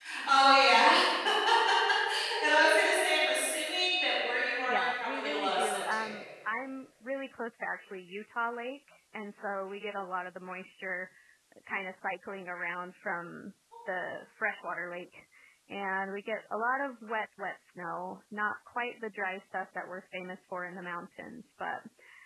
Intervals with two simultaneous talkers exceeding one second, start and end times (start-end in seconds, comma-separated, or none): 4.7-6.1